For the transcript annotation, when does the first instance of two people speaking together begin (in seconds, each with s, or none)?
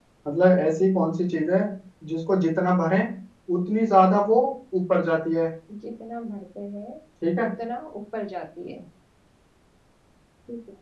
none